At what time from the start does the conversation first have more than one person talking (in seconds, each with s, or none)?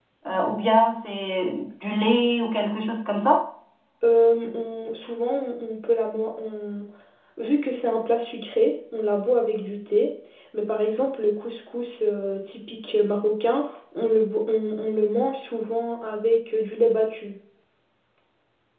none